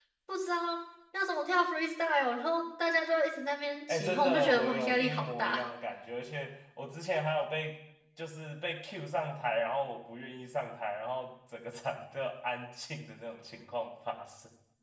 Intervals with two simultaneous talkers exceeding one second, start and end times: 3.9-5.6

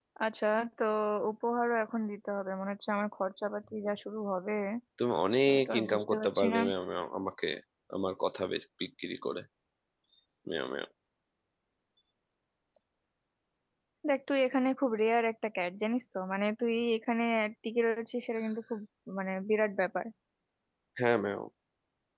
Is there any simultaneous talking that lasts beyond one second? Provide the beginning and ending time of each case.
5.5-6.7

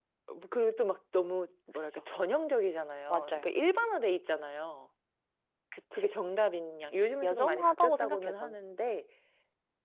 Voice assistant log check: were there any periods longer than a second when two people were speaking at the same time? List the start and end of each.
7.2-8.6

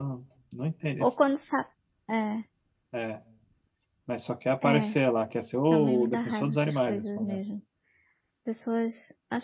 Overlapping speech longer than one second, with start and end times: 5.7-7.4

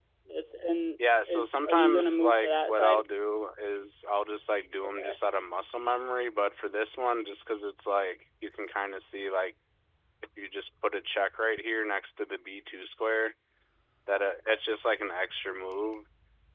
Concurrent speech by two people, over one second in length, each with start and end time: 1.3-3.0

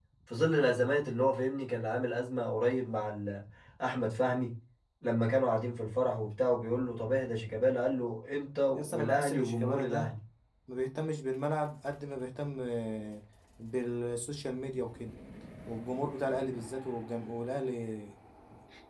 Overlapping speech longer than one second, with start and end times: 8.8-10.1

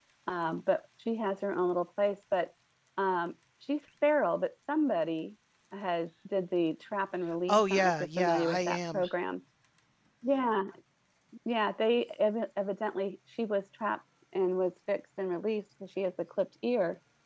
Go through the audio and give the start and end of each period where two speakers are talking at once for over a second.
7.5-9.1

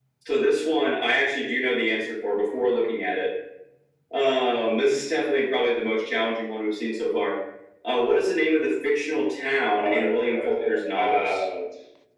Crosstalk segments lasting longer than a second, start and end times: 9.8-11.4

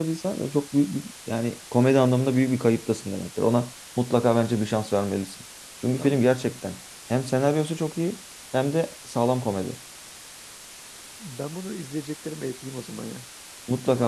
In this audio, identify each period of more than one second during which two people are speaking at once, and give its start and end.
none

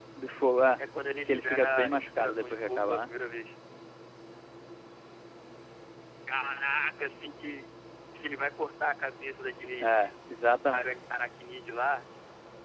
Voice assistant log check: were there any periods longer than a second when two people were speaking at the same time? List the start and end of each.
1.3-3.1

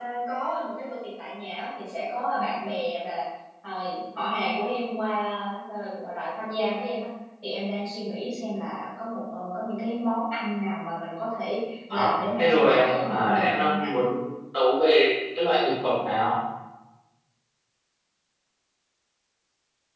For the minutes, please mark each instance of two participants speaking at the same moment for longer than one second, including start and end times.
11.9-13.9

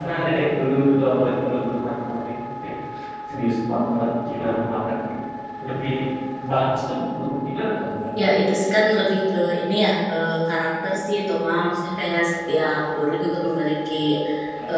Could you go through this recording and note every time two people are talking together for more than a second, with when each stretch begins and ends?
none

